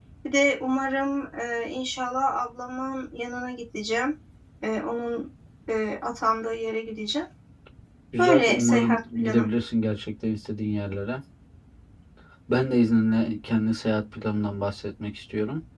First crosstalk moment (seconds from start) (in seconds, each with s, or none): 8.2 s